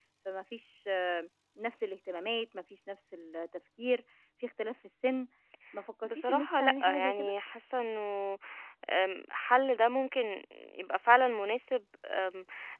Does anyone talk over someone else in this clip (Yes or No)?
Yes